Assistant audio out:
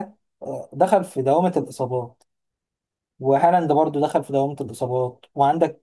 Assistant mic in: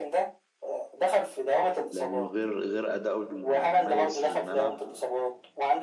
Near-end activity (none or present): present